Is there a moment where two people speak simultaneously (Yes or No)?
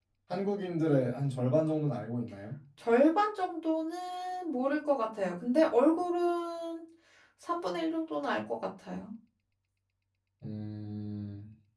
No